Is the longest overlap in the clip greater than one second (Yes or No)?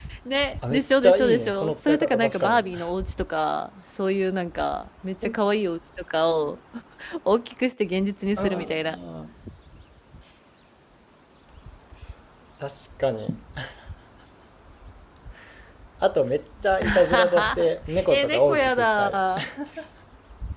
Yes